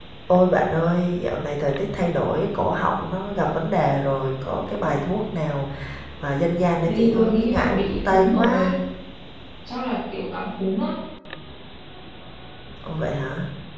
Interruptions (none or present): present